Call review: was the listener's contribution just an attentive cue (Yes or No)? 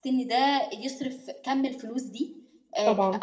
Yes